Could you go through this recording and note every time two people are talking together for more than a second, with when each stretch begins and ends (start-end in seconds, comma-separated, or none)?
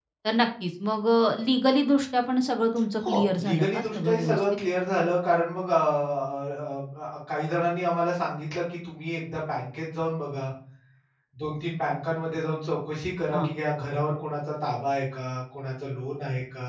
3.1-4.4